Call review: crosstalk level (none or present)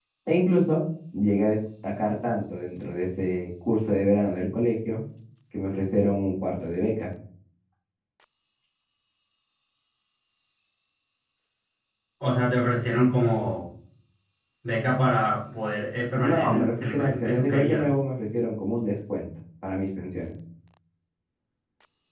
present